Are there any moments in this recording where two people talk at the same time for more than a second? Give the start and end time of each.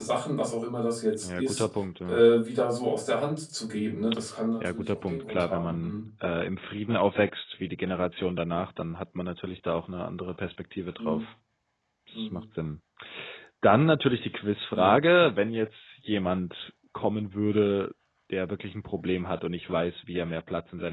4.6-5.9

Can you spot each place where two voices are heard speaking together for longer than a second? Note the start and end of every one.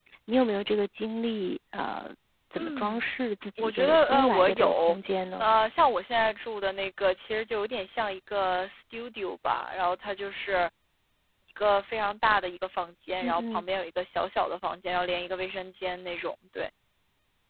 3.6-5.0

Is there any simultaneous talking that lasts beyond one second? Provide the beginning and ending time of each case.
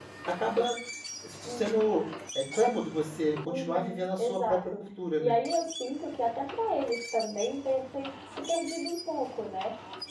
3.5-4.8

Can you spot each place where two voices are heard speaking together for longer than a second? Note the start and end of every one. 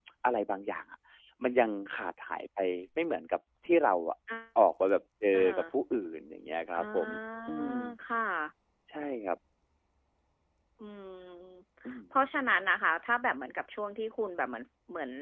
none

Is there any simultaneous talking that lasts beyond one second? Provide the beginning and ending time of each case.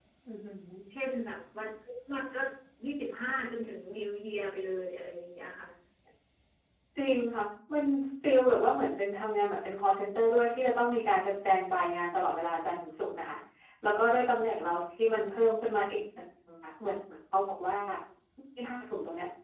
none

